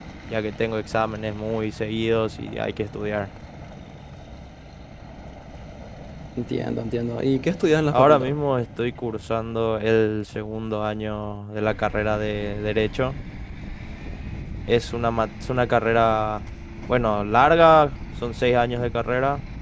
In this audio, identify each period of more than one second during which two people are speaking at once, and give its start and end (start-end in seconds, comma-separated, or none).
none